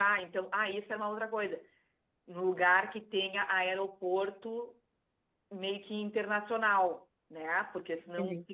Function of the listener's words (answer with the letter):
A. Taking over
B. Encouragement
B